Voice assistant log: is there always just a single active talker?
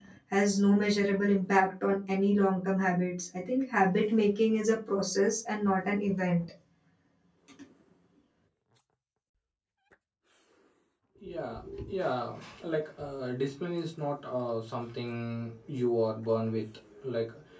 Yes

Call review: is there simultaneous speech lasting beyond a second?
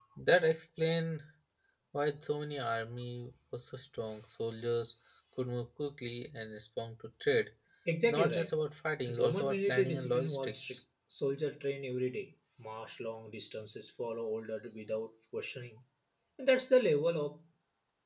Yes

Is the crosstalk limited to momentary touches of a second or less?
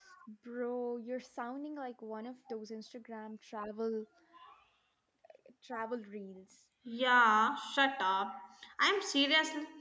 Yes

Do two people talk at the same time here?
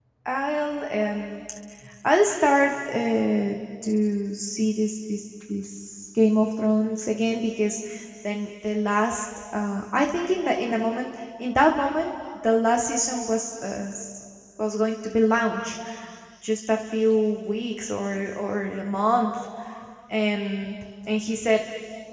No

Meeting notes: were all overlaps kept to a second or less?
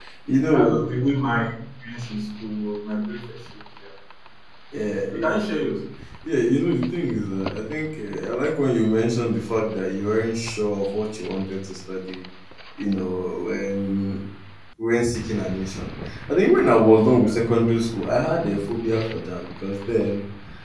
Yes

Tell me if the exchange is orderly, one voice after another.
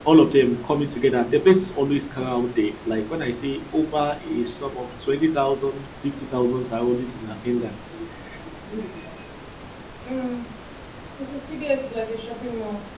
Yes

